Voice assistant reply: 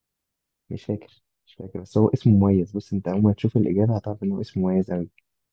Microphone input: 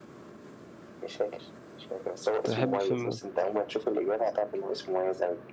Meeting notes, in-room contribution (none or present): present